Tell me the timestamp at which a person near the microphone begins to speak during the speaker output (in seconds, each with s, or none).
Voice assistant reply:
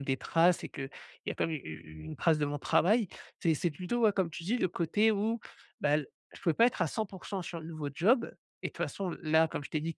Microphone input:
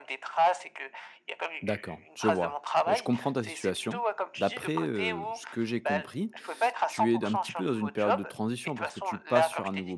1.6 s